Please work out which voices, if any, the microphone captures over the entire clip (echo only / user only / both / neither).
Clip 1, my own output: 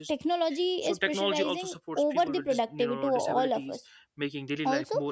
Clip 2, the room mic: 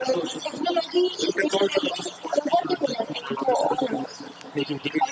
echo only